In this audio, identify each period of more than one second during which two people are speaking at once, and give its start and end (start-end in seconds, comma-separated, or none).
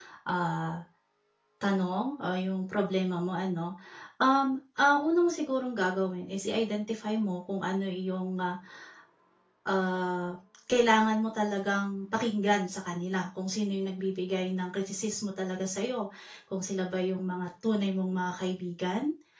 none